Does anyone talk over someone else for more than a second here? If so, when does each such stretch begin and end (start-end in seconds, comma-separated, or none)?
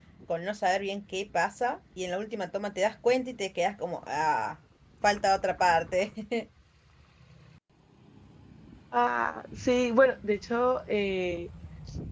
none